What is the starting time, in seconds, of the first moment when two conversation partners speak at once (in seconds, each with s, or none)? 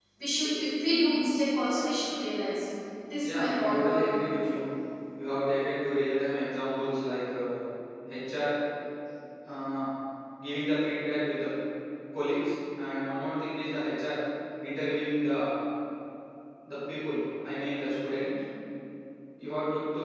3.2 s